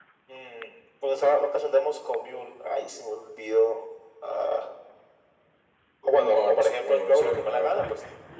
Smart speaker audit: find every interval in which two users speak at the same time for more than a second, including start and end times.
6.1-7.9

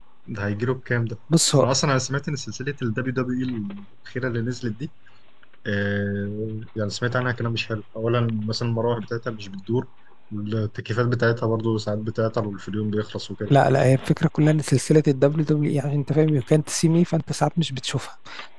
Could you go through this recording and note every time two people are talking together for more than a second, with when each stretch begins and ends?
none

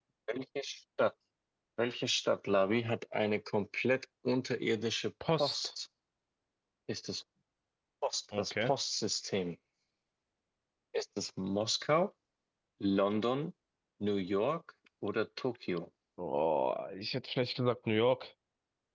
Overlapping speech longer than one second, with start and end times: none

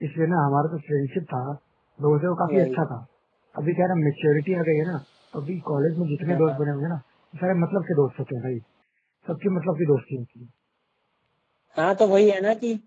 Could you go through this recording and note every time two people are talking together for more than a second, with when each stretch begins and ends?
none

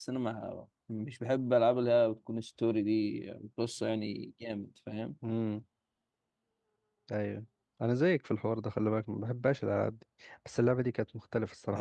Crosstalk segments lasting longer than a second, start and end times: none

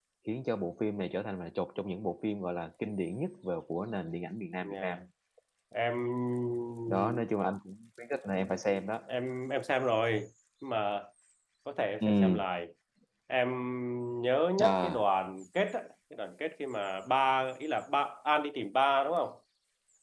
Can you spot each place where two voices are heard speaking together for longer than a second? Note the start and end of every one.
none

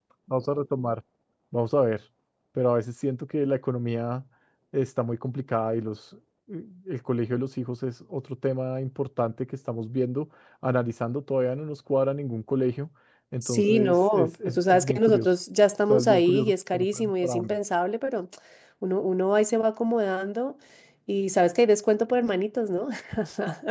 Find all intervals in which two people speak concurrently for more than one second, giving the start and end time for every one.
13.4-15.3, 15.9-17.6

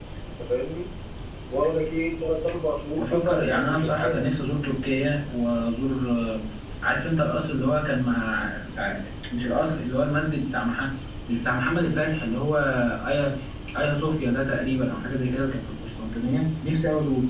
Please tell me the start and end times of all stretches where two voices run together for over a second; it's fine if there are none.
3.0-4.2

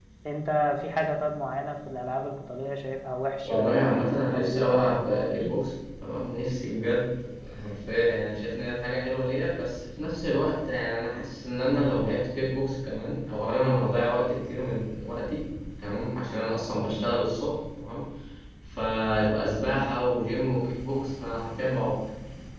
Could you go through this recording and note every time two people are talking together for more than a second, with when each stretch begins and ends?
3.5-5.5

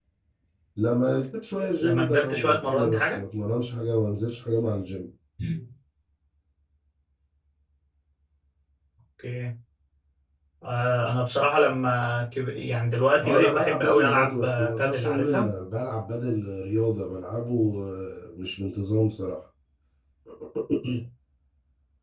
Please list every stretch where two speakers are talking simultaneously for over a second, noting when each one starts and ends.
1.8-3.2, 13.2-15.5

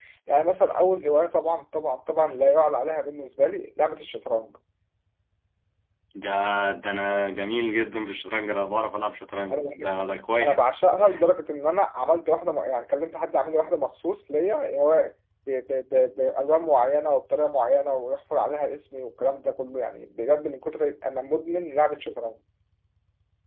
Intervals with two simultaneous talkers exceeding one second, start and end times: none

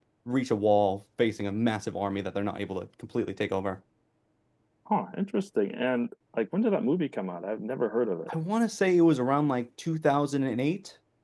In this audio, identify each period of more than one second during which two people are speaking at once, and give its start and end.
none

